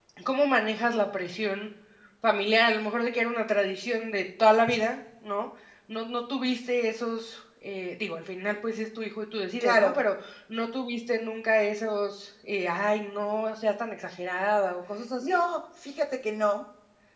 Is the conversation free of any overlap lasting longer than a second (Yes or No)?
Yes